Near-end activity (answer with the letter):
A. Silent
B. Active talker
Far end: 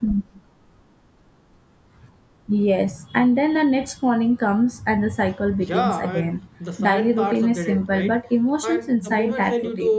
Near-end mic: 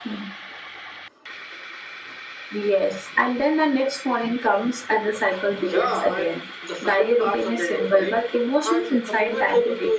A